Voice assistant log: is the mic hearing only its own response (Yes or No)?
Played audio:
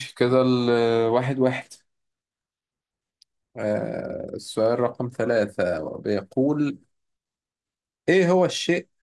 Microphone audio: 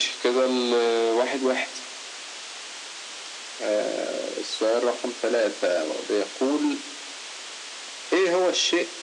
Yes